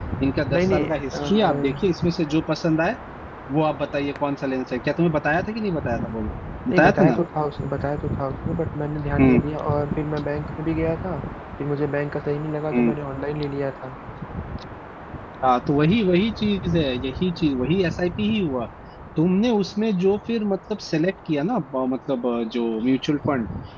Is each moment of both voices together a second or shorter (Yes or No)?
No